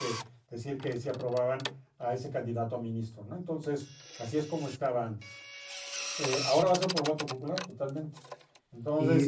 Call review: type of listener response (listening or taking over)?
listening